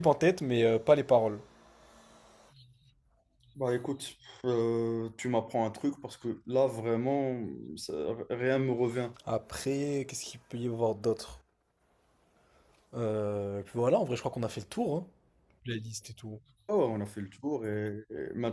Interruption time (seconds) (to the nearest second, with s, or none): none